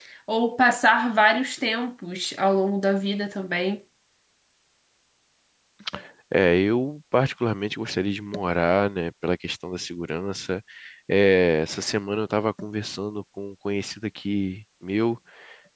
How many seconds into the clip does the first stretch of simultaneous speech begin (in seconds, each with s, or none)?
none